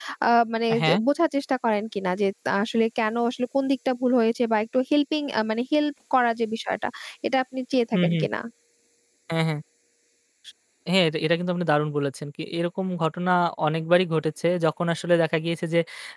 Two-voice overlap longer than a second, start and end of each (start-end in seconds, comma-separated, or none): none